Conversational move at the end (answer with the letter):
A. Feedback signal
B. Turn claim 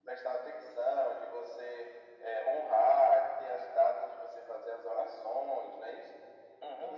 B